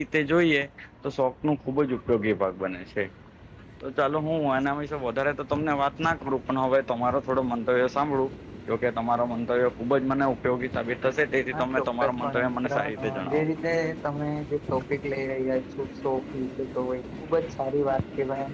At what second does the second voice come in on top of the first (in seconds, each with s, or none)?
11.5 s